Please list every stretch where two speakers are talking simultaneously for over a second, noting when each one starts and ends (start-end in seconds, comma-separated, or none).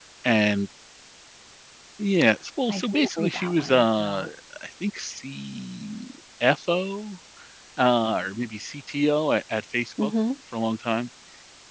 2.7-4.2